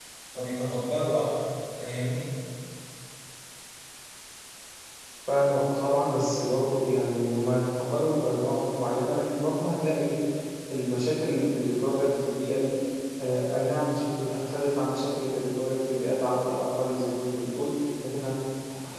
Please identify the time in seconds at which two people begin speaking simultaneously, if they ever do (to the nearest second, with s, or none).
none